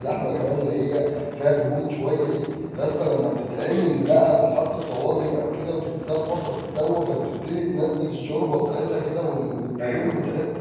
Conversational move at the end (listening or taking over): listening